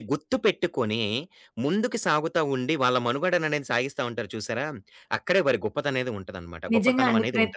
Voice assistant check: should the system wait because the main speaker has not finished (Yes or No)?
No